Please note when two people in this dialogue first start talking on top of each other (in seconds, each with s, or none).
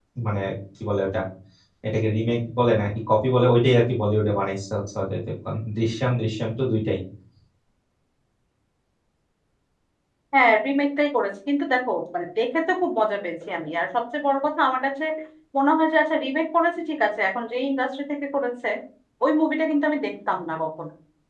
none